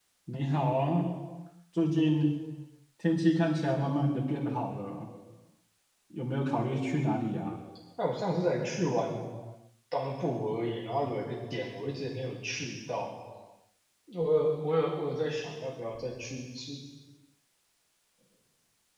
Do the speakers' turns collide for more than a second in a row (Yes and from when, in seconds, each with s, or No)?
No